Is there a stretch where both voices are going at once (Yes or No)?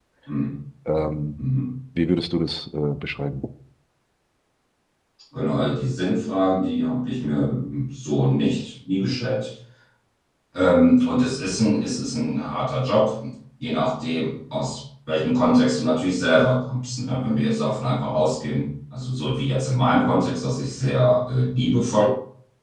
No